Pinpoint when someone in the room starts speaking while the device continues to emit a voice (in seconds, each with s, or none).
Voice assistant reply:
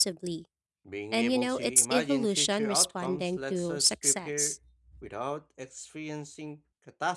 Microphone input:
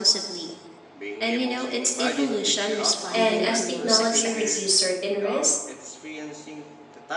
3.1 s